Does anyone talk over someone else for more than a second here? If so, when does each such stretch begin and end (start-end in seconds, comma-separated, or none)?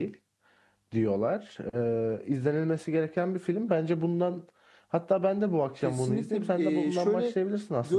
5.8-7.3